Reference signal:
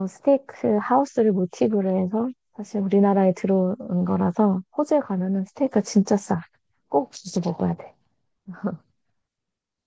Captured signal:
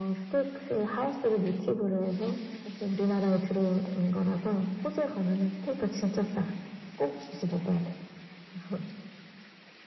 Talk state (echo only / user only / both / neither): echo only